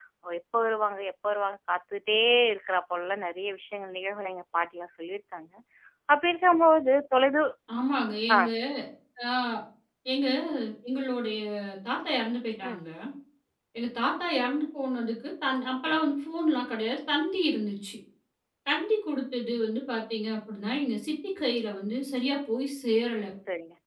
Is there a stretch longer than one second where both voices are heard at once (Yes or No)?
No